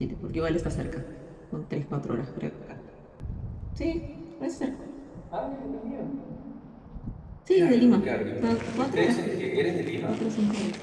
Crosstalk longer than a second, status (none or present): present